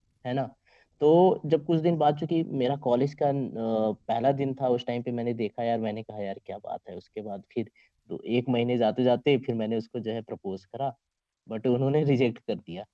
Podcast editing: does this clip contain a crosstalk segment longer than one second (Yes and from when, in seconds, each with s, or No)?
No